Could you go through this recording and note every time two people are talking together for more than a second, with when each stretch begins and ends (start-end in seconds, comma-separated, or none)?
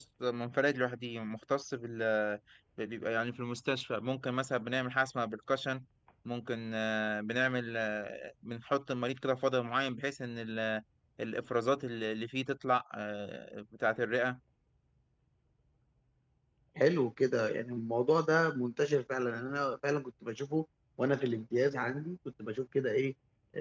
none